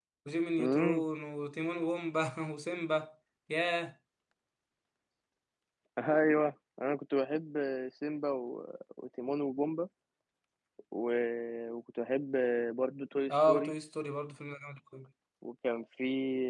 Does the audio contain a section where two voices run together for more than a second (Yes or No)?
No